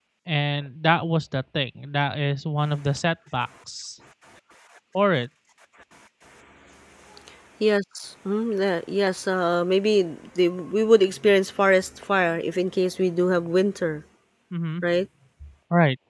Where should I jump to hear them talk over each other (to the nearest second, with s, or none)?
none